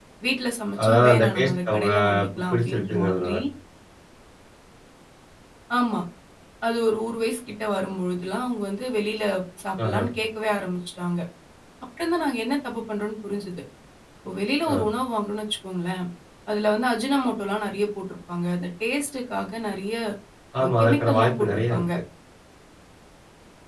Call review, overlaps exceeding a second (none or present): present